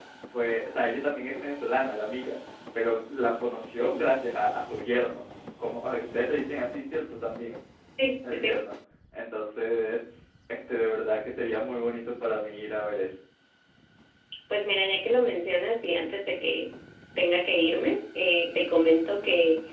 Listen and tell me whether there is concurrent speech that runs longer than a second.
No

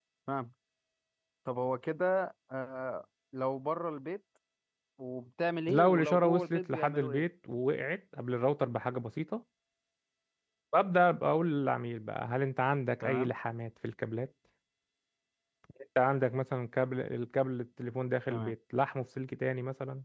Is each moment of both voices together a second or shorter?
No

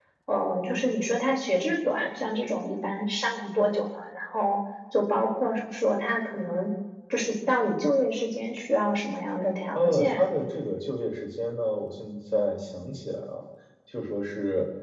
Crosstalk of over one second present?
No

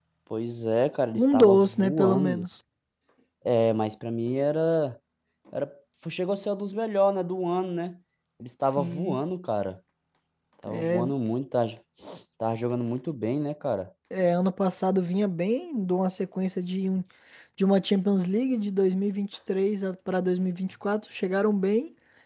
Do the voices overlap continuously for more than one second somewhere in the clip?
Yes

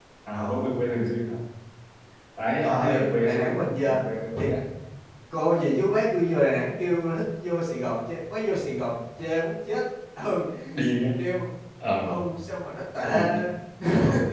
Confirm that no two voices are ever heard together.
No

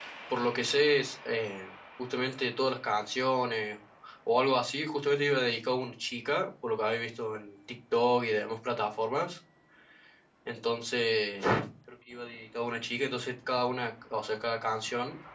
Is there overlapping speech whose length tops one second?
No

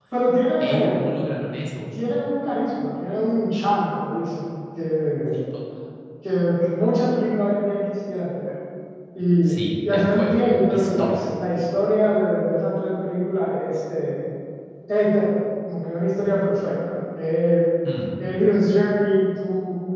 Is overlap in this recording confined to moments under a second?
No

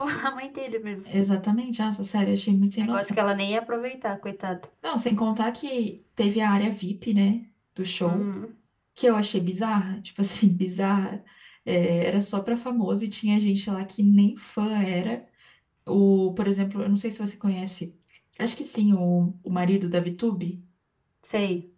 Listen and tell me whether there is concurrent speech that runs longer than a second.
No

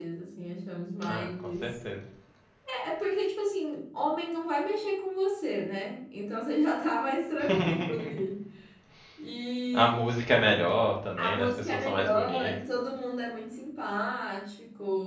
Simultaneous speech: Yes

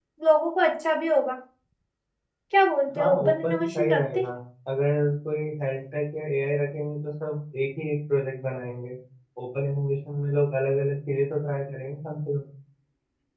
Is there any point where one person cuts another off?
Yes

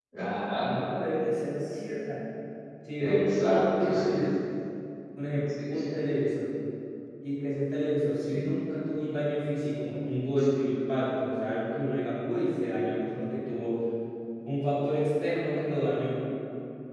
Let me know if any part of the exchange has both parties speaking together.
Yes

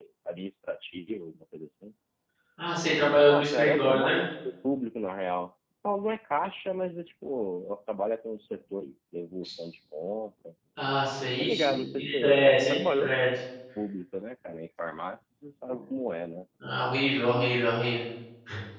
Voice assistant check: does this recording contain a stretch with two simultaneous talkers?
Yes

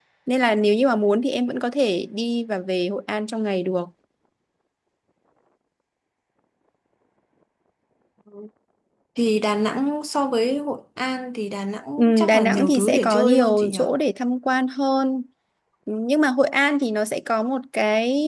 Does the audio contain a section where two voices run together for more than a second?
Yes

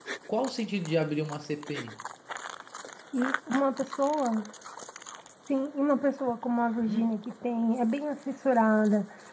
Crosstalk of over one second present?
No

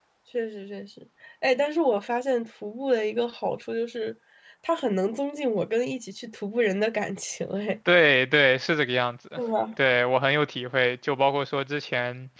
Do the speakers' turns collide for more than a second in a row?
No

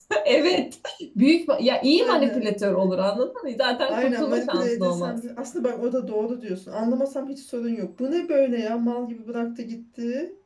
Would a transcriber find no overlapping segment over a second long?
No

